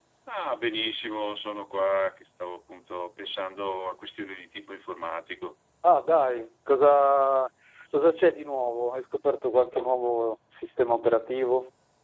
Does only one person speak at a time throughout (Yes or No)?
Yes